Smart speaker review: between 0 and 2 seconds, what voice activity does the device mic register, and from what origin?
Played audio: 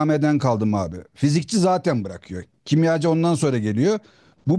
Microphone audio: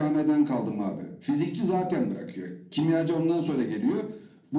echo only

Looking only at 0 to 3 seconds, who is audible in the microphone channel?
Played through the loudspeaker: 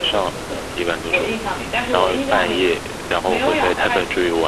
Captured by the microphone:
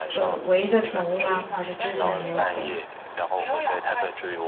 both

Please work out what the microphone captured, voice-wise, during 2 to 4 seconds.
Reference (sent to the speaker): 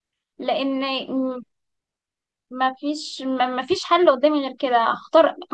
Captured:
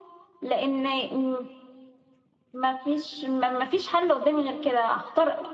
echo only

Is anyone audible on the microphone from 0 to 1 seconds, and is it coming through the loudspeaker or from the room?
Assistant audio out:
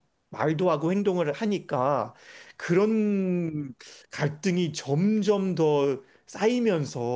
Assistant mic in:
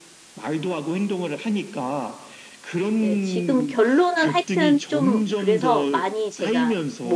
echo only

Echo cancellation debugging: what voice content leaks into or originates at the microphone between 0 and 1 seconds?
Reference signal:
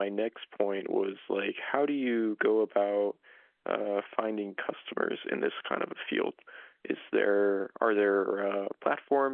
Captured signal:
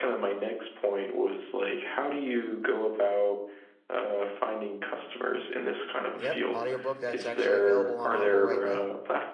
echo only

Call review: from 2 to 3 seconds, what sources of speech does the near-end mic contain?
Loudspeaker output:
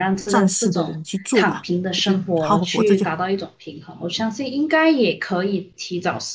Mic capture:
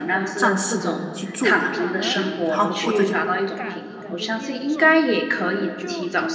both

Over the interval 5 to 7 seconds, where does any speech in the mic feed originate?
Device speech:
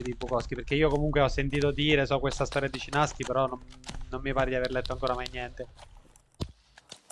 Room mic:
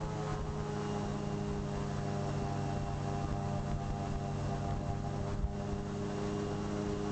neither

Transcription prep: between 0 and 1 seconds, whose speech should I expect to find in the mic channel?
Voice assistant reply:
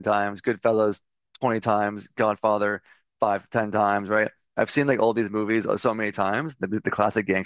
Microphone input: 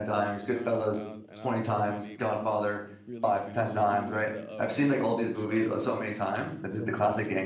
both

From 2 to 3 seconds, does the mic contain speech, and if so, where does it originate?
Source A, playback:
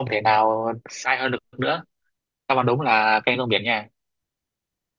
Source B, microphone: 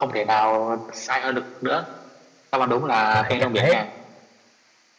echo only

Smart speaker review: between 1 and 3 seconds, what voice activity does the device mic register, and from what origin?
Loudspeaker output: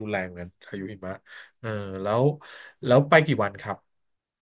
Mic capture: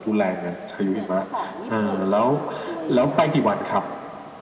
both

